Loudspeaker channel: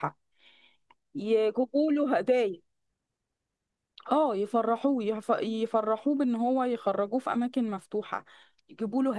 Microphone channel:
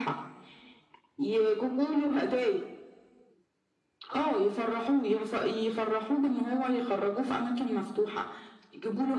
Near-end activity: none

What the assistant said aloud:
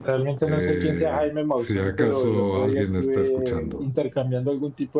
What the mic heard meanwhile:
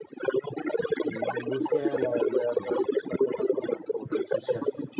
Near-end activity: present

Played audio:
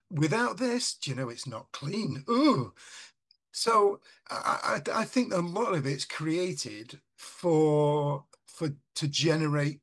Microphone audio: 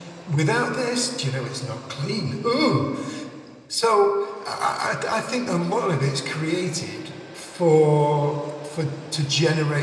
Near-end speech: none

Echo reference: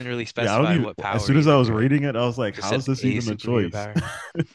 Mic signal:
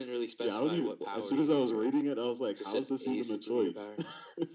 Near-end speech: none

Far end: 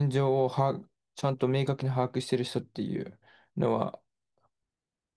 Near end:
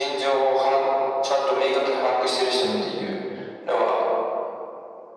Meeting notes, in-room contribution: present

